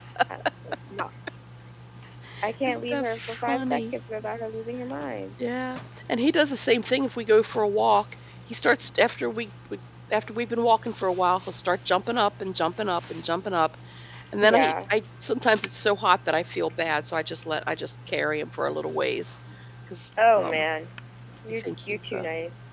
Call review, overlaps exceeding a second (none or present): present